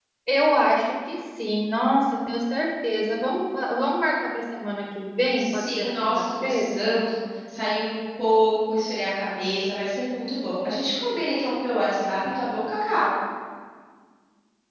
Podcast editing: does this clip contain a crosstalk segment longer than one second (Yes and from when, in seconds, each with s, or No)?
Yes, from 5.4 s